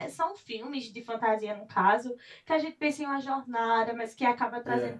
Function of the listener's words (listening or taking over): listening